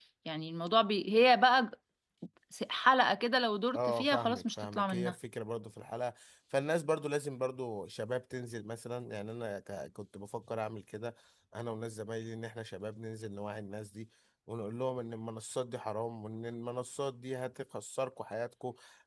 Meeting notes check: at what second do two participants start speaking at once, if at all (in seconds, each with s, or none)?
3.7 s